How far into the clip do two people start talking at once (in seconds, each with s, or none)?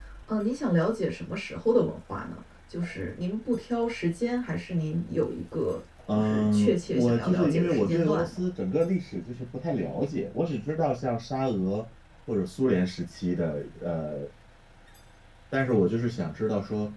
6.1 s